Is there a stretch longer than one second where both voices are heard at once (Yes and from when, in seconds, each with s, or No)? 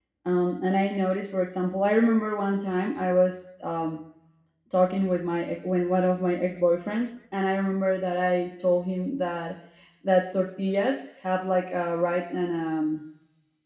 No